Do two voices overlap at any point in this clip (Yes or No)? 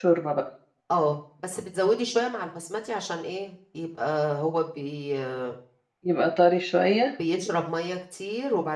No